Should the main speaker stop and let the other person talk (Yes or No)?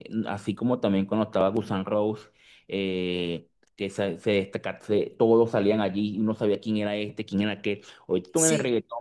No